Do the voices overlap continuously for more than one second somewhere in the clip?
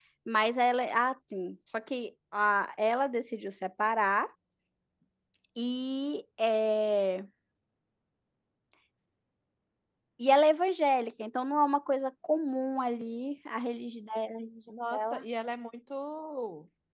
No

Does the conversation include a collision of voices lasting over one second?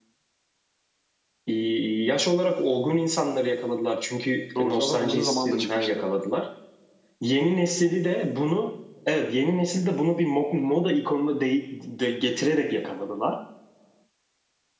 Yes, from 4.5 s

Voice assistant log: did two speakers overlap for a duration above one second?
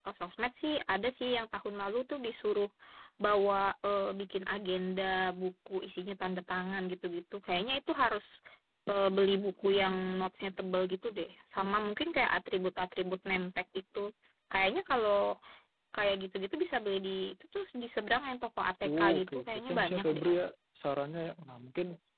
Yes, from 18.8 s

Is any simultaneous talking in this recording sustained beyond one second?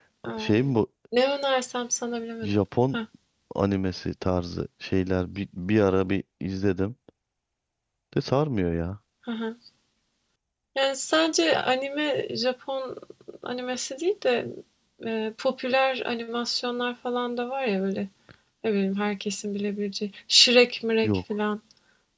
No

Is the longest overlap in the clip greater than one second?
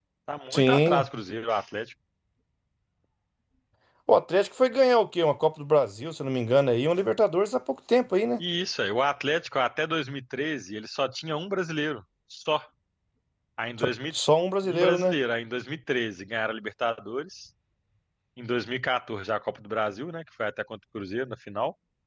No

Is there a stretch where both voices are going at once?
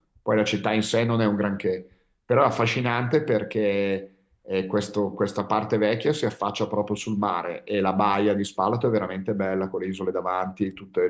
No

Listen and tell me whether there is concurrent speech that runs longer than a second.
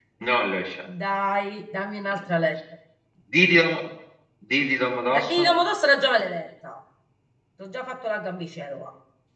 No

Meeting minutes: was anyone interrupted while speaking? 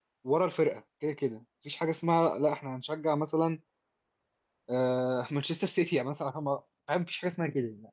No

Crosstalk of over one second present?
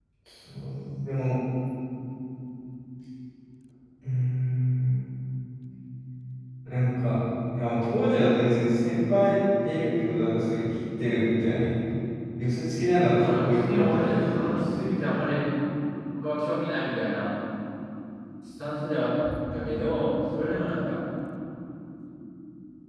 Yes, from 13.1 s

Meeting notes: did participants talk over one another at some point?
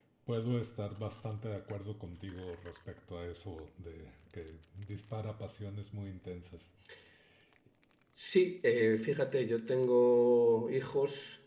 No

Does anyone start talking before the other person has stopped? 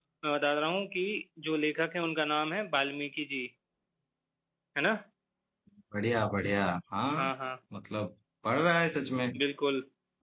No

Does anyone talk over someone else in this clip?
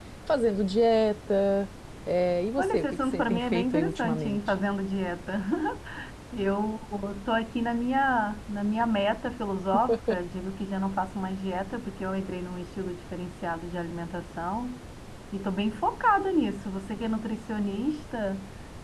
Yes, from 2.6 s

